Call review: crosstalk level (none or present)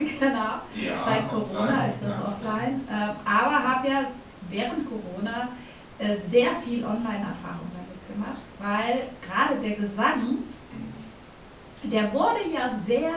present